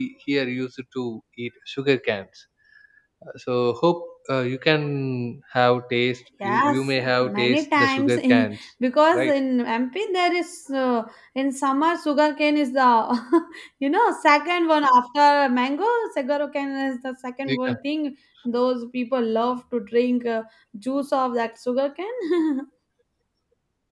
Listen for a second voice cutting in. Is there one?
Yes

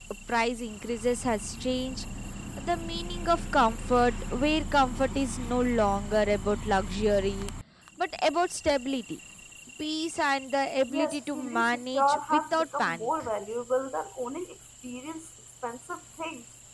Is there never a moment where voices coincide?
No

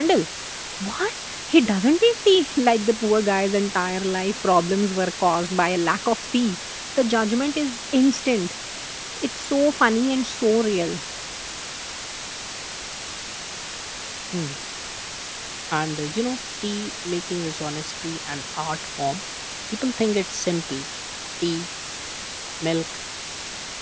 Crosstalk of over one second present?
No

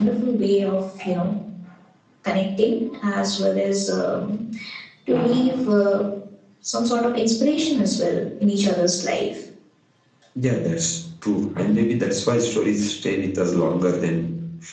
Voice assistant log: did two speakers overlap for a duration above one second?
No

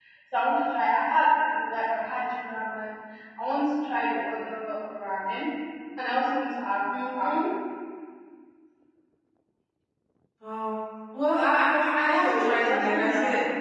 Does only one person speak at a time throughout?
No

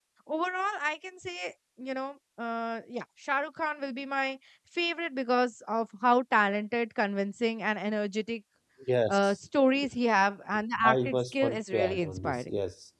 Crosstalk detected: Yes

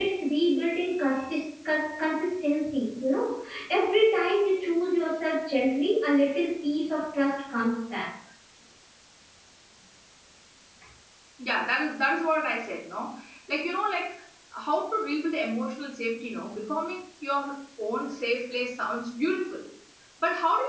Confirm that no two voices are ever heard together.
Yes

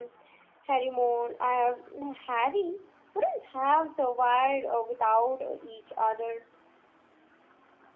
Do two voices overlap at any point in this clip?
No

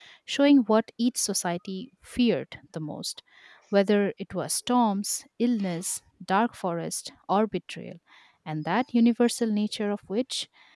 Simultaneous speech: No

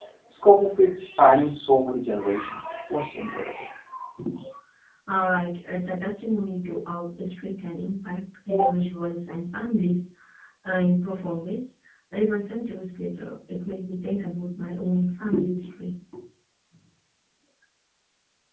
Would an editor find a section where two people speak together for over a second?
No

